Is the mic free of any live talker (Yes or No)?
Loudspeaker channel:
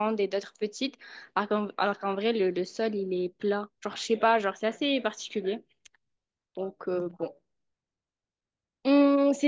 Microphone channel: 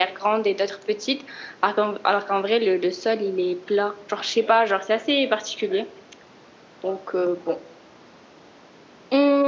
Yes